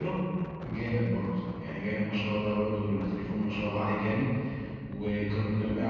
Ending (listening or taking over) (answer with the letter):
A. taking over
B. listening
B